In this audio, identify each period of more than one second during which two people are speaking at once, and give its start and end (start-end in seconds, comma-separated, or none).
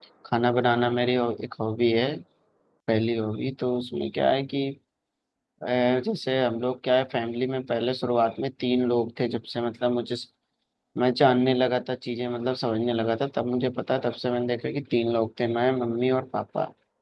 none